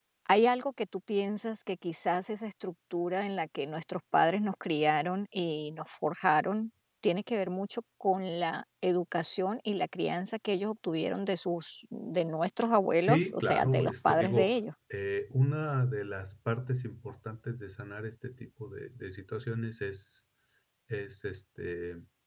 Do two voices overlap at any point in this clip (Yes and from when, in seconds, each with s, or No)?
Yes, from 13.0 s